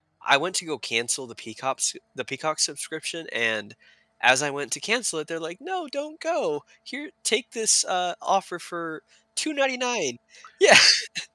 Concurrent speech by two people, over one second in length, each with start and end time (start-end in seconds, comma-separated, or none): none